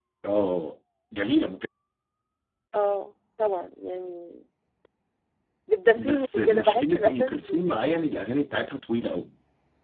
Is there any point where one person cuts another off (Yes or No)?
Yes